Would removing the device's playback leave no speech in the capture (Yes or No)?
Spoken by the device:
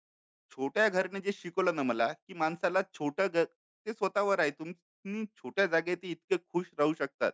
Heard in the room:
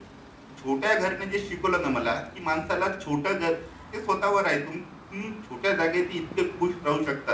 Yes